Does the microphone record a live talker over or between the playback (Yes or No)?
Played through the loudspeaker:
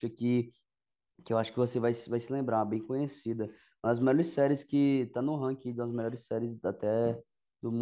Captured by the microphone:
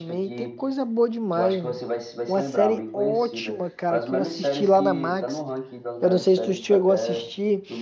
Yes